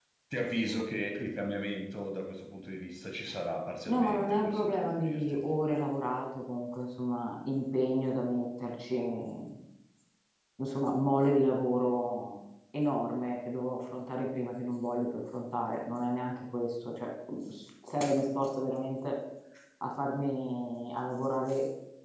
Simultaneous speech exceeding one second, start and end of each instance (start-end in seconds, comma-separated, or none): 3.9-5.3